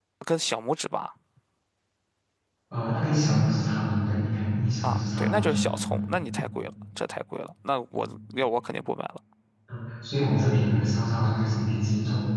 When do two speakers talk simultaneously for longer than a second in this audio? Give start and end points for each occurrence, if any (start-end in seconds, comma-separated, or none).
4.8-6.0